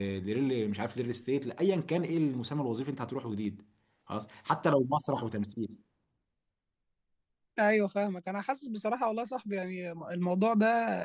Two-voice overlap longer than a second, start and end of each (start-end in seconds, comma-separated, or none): none